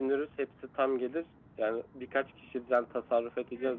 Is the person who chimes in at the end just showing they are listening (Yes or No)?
Yes